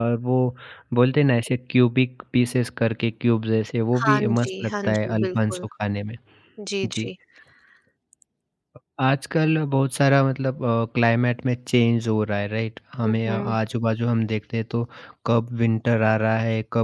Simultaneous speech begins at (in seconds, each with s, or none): 4.0 s